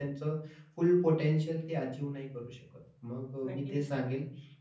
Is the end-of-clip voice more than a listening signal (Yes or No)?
No